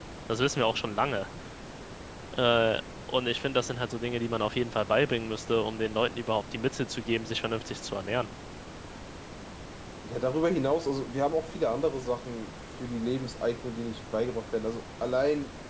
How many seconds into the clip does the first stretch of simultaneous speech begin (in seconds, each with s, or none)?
none